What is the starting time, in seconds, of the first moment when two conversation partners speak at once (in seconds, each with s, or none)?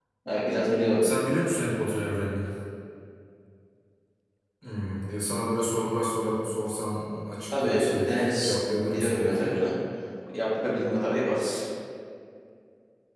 7.5 s